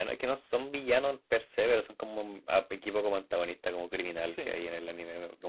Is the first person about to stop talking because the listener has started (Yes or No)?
No